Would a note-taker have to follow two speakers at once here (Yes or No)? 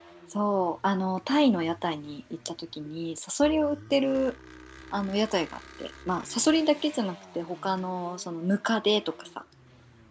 No